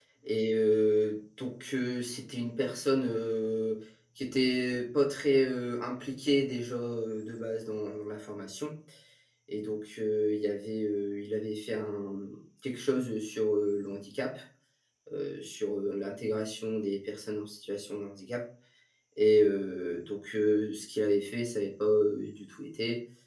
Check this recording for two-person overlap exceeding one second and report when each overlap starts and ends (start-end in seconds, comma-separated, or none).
none